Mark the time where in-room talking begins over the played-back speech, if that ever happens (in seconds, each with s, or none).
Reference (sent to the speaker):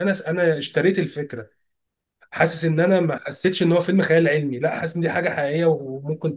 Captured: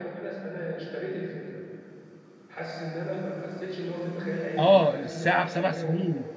4.6 s